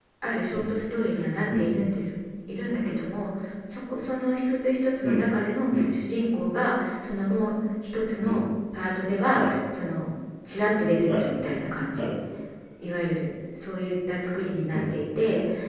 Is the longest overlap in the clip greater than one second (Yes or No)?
No